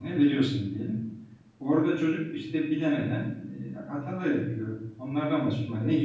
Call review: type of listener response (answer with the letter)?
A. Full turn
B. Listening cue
B